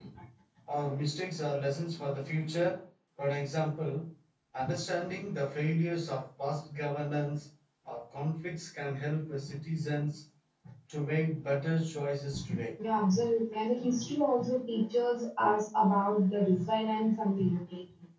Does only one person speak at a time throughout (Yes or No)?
Yes